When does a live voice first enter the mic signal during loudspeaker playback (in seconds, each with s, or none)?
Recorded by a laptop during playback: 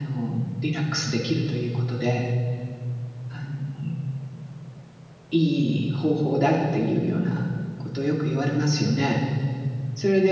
none